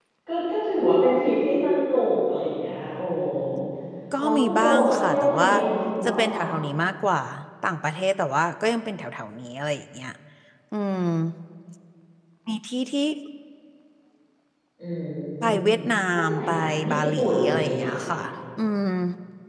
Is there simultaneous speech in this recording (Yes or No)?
Yes